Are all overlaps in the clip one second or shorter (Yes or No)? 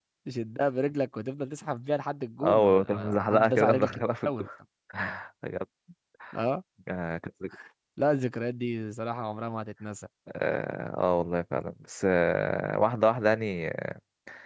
No